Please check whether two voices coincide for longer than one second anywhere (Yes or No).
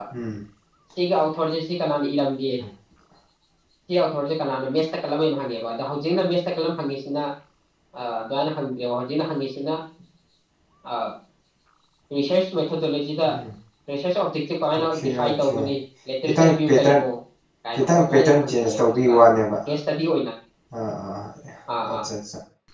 Yes